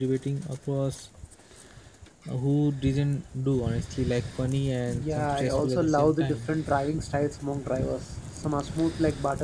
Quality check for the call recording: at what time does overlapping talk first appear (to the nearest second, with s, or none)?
5 s